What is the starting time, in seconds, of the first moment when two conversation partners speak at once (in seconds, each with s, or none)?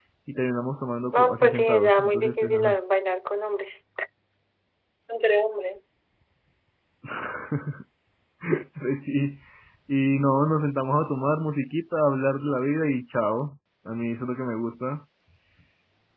1.1 s